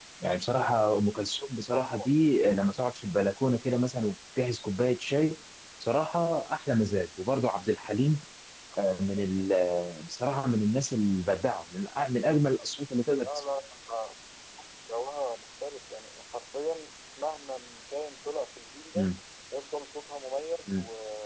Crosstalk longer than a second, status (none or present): none